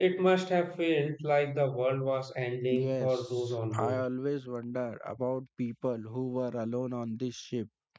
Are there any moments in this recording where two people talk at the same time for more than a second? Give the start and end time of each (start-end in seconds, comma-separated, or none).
2.7-4.0